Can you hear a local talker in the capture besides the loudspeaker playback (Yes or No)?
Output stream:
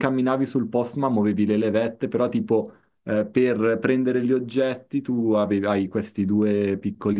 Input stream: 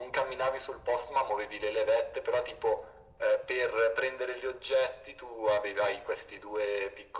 No